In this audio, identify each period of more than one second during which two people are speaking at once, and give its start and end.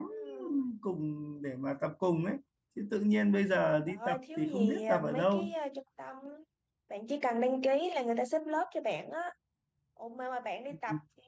3.9-5.5

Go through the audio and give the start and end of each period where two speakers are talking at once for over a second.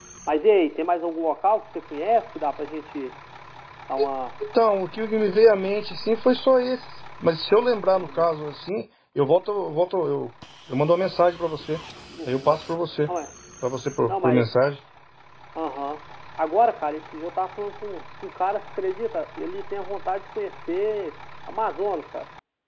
none

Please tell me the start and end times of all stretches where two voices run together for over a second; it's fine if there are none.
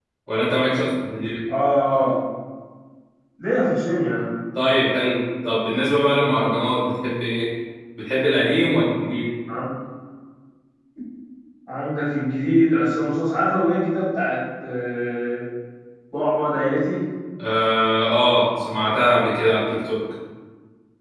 none

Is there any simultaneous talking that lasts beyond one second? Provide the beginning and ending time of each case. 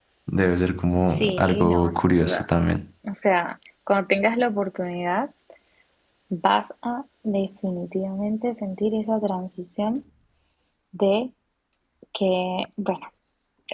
1.1-2.4

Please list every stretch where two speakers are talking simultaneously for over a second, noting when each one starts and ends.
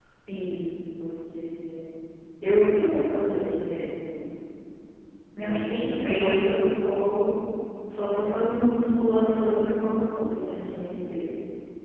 5.4-6.6

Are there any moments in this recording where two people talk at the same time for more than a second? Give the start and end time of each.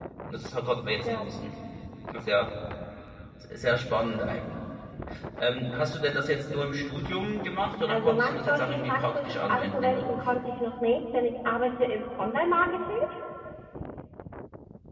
7.9-10.3

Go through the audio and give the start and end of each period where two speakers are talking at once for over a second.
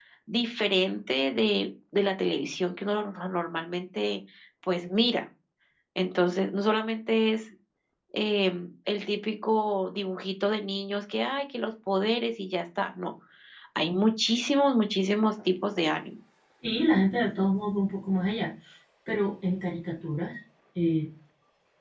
none

